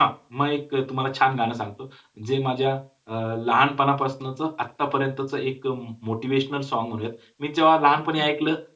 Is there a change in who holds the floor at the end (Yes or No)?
No